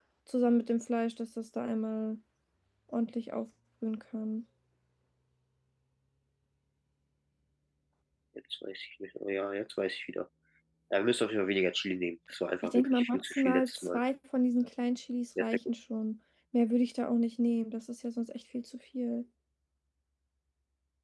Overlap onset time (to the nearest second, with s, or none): 13 s